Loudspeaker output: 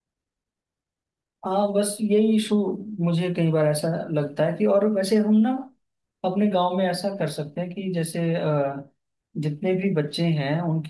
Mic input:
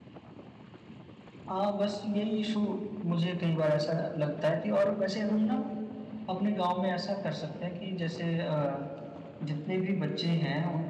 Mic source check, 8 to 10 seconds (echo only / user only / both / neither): echo only